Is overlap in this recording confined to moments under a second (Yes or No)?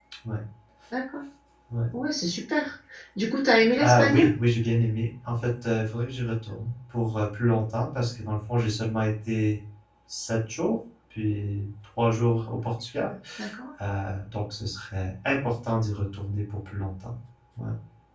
Yes